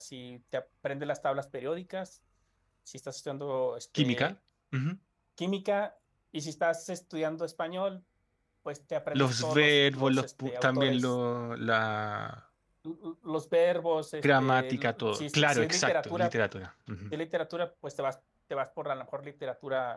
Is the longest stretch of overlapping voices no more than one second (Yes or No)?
No